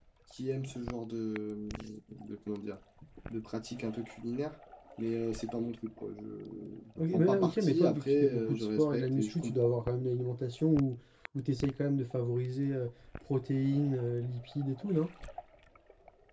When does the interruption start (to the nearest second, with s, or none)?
7 s